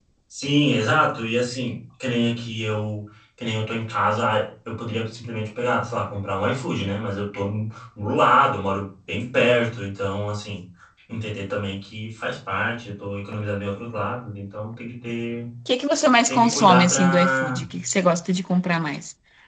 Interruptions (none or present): present